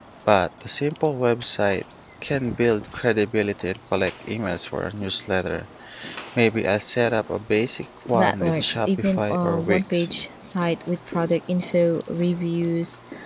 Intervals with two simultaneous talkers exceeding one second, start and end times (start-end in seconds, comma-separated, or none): 8.1-10.1